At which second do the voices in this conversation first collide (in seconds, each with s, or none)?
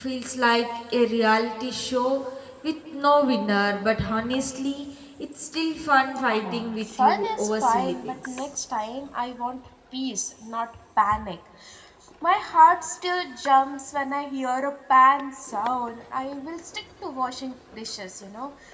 6.3 s